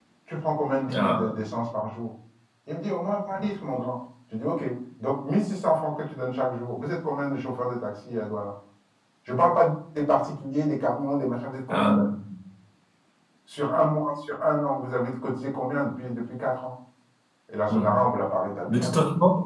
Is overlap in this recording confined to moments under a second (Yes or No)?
Yes